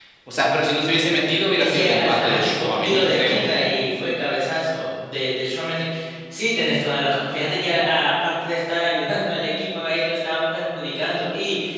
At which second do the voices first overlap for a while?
1.6 s

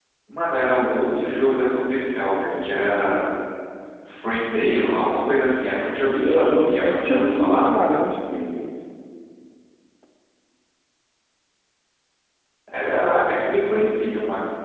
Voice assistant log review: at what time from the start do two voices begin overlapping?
6.1 s

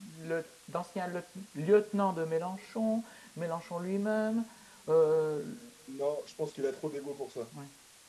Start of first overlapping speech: none

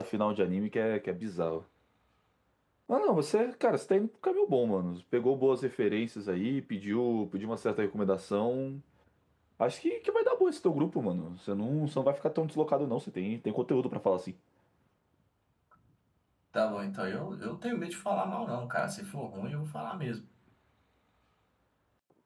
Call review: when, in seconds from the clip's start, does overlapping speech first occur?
none

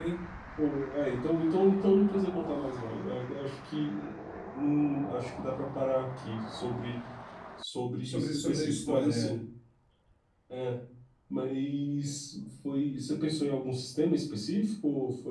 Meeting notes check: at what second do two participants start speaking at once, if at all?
8.0 s

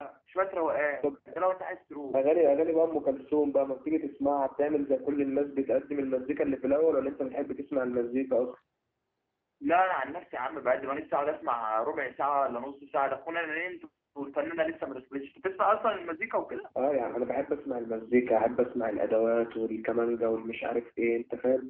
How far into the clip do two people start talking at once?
none

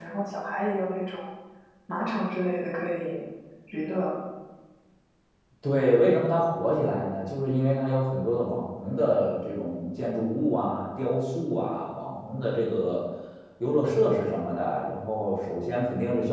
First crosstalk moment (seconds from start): none

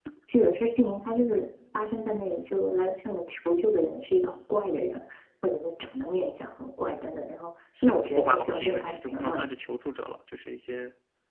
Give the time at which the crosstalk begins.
7.8 s

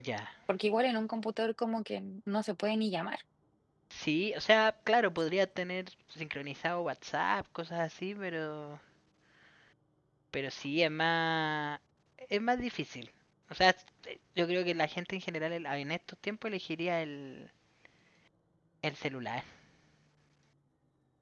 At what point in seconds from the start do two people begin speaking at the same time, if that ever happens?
none

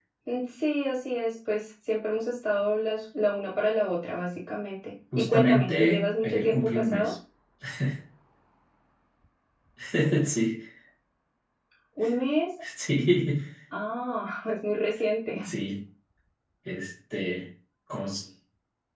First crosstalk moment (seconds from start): 5.1 s

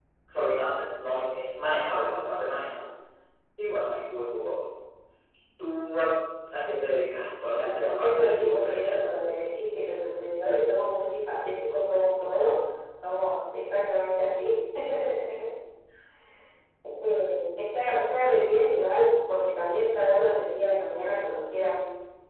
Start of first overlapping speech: 7.6 s

